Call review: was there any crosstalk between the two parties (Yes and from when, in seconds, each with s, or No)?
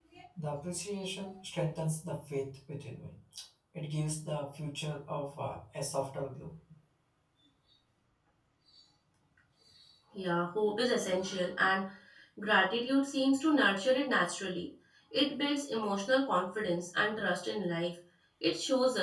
No